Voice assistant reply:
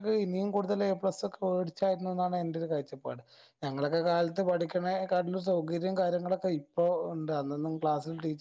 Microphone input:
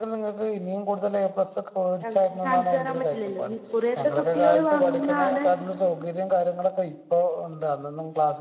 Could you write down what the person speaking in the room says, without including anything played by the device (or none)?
ഞങ്ങക്ക് കാണിച്ചു തരാൻ പറ്റില്ലല്ലോ ഇനി ഇക്കുറിയത്തെ കുട്ടികൾ വാങ്ങുന്നതാണ്